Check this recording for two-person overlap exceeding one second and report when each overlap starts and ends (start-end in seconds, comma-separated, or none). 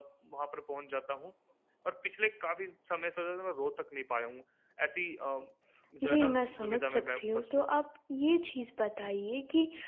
6.0-7.8